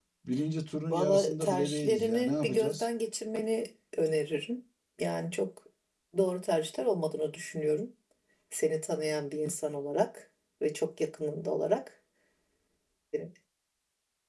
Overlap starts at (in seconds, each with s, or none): 0.9 s